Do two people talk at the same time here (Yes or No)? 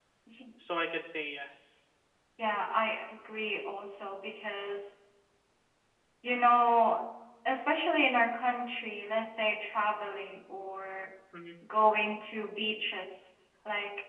No